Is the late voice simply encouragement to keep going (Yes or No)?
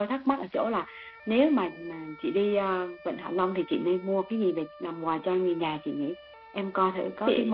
Yes